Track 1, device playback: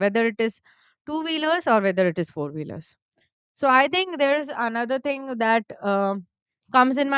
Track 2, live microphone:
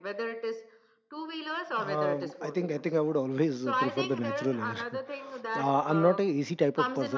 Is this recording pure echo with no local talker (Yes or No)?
No